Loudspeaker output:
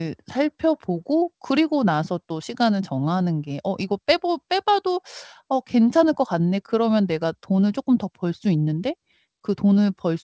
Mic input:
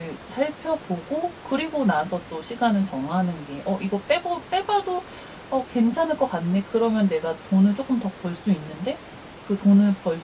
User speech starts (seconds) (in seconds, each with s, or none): none